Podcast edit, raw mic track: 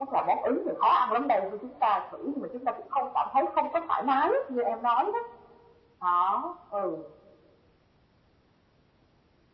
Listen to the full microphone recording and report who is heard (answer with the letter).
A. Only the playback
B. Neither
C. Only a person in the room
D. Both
A